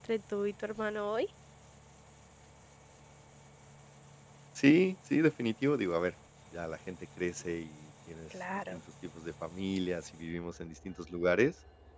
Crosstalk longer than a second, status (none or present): none